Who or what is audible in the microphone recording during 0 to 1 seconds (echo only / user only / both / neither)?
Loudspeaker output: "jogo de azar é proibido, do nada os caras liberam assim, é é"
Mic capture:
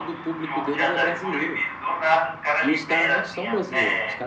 both